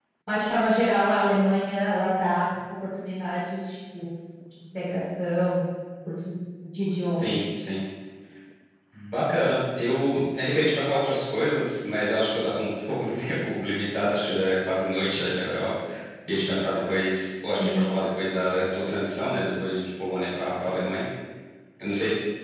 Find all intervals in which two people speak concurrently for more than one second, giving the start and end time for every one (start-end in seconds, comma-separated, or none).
none